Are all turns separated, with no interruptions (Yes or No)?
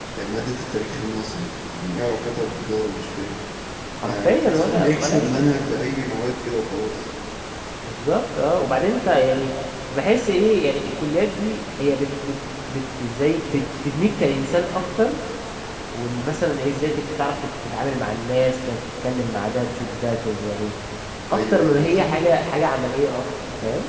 No